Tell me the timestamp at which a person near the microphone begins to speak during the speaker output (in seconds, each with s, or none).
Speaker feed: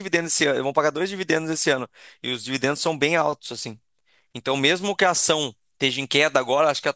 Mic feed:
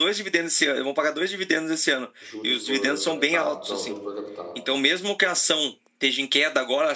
2.2 s